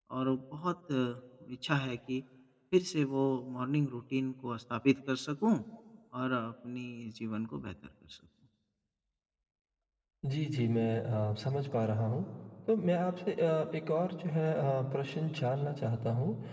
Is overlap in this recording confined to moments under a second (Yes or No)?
Yes